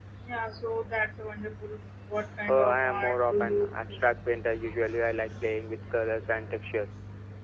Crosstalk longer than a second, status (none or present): present